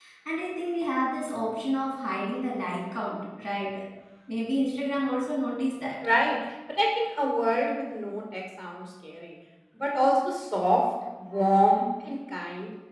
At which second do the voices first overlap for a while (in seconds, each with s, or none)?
none